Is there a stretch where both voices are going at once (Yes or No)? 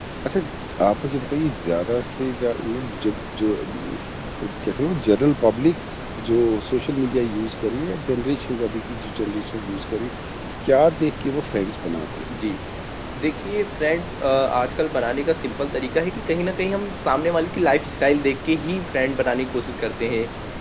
No